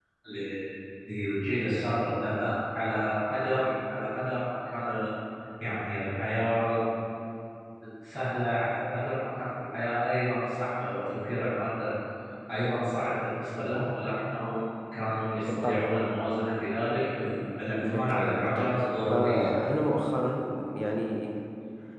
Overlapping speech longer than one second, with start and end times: 17.8-19.5

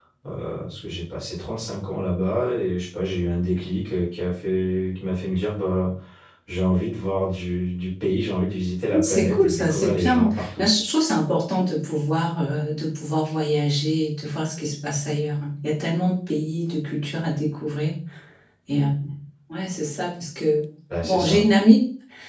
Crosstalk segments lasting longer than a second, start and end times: 9.0-10.7

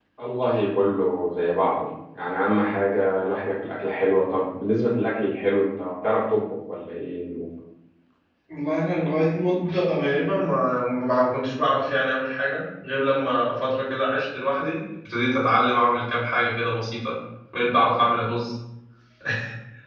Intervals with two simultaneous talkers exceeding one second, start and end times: none

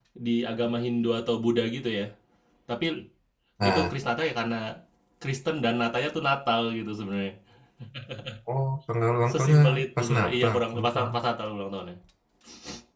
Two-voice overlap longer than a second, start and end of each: 9.3-11.2

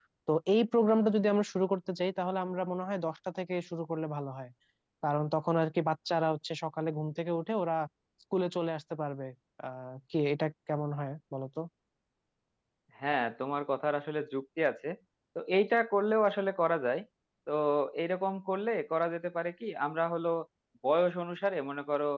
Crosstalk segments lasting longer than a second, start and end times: none

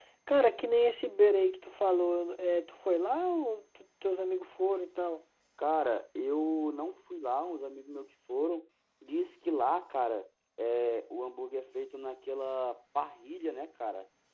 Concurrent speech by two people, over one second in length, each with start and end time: none

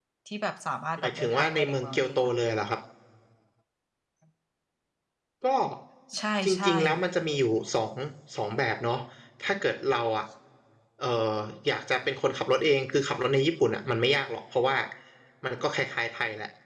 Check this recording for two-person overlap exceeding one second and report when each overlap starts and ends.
1.0-2.3

